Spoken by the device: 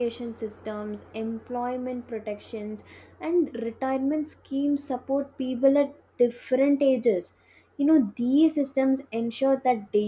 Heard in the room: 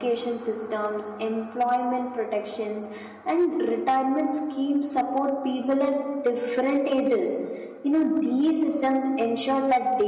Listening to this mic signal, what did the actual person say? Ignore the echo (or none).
none